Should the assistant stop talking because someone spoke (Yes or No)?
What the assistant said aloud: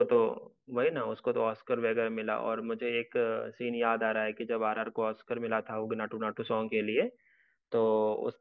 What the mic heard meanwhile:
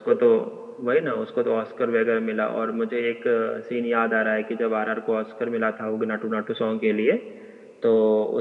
No